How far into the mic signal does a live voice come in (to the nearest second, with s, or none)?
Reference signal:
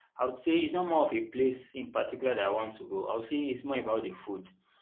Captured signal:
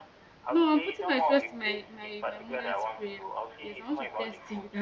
0 s